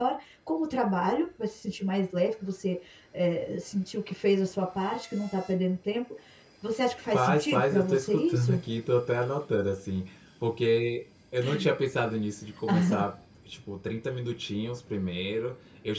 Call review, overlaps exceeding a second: present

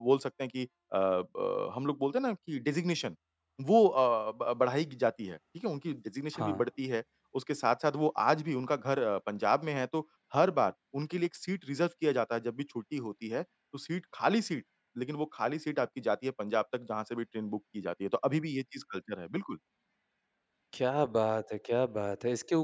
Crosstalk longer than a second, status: none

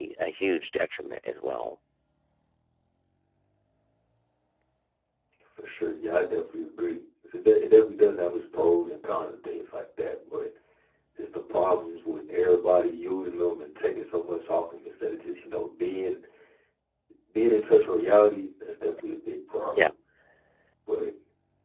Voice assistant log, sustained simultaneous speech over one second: none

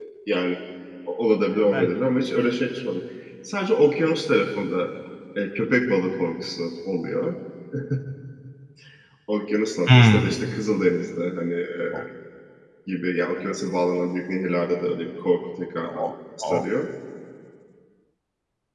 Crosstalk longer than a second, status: none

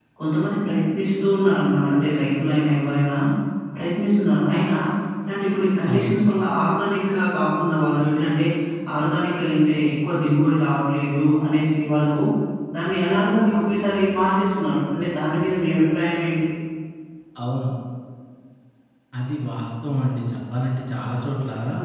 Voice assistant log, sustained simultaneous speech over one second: none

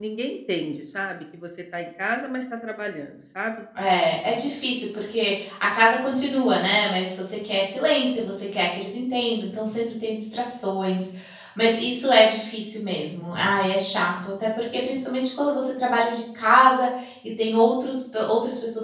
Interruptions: none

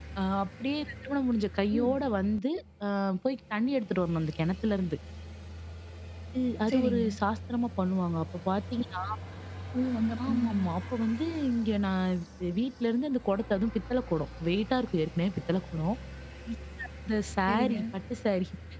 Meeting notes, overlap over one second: none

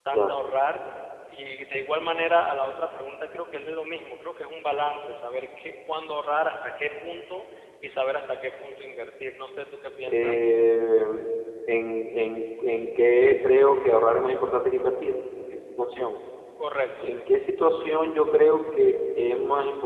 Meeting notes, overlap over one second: none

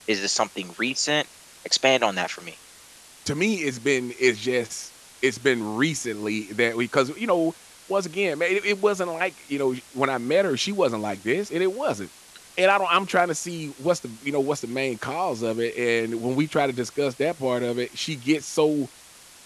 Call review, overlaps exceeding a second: none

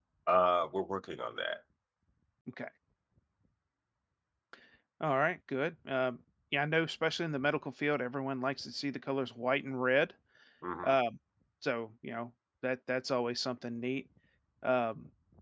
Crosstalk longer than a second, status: none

